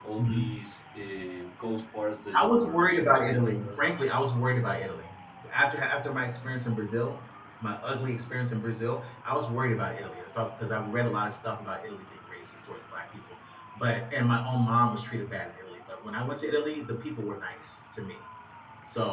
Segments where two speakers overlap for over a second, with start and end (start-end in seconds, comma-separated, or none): 2.4-3.8